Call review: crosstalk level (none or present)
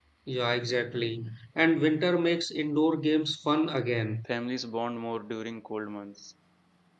none